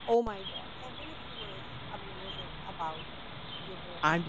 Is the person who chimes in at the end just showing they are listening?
No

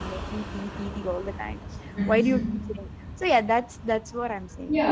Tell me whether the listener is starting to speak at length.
Yes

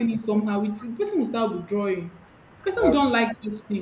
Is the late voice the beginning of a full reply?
No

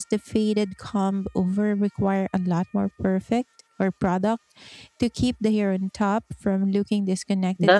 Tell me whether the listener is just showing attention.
No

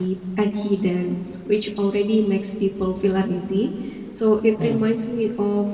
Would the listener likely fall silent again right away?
Yes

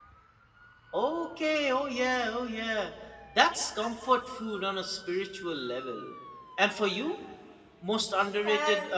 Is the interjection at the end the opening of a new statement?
No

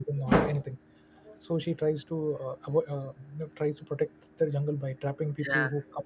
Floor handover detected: No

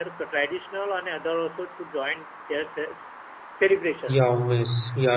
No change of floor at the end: No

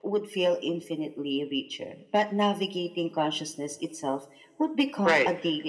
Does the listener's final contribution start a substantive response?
Yes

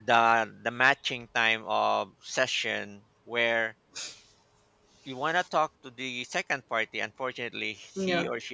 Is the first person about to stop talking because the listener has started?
No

